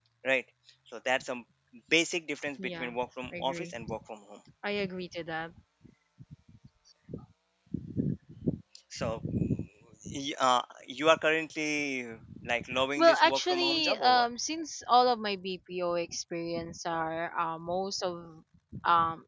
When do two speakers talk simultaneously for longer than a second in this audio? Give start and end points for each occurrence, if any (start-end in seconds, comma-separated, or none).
13.0-14.3